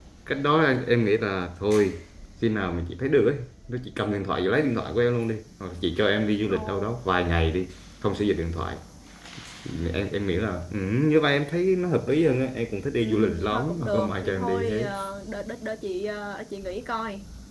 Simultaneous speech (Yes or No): Yes